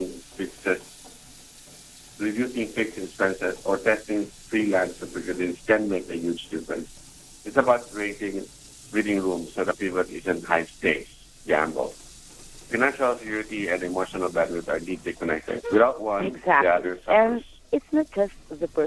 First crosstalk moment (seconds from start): 16 s

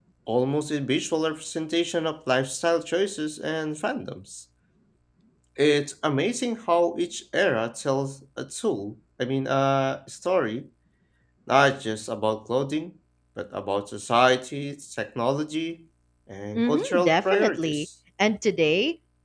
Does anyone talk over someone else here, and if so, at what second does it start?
17 s

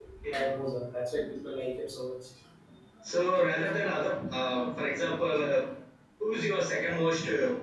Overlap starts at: none

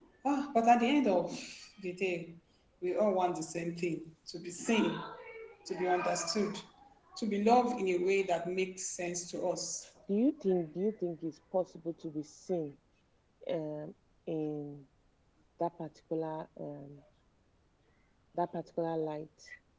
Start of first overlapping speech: none

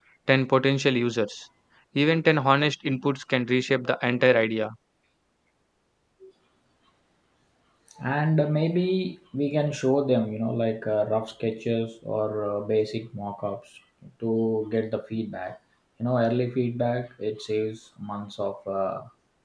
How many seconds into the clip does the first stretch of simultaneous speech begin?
none

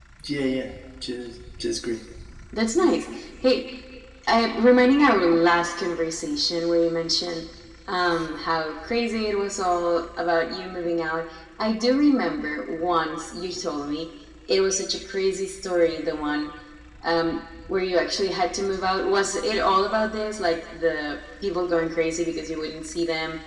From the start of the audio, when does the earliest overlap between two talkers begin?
none

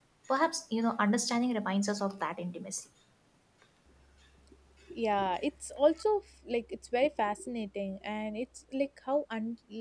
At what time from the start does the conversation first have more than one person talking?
none

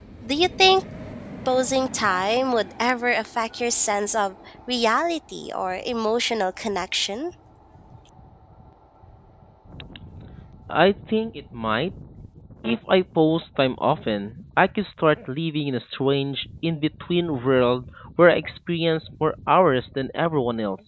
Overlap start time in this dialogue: none

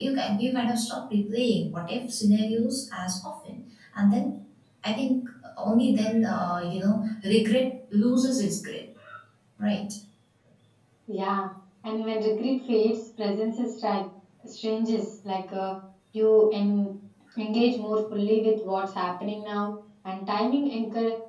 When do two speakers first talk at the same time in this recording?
none

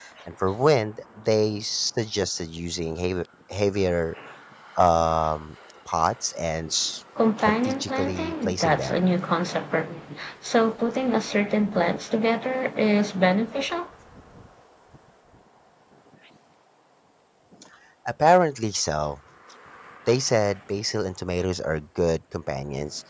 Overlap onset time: 7 s

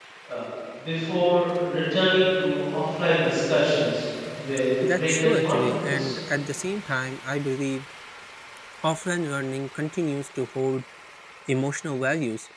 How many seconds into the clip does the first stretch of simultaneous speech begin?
5 s

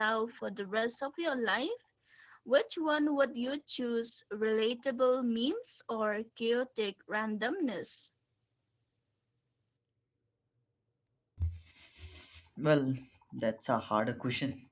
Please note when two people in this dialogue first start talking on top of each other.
none

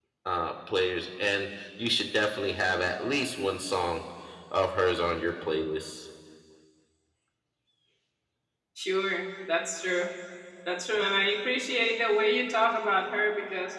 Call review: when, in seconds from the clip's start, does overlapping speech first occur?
none

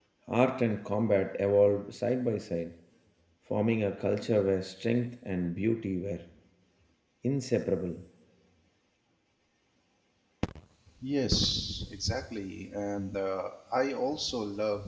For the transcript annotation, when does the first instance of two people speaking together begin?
none

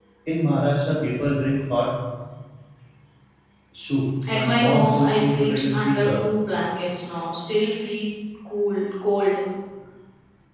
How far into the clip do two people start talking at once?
4 s

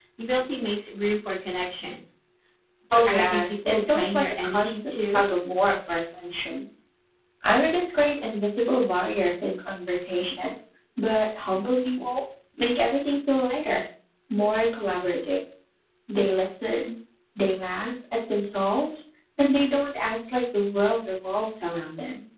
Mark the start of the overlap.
3 s

